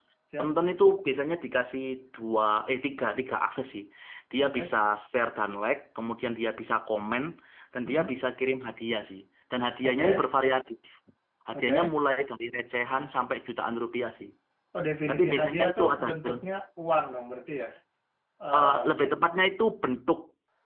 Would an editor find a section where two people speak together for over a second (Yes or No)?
Yes